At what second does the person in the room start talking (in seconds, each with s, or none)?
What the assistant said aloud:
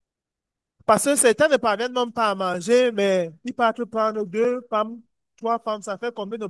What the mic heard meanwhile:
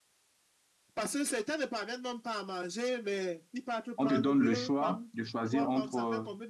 4.0 s